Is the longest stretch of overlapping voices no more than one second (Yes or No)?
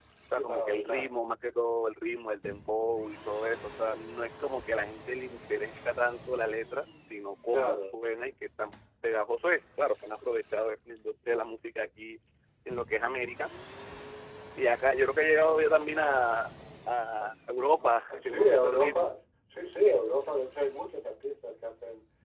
No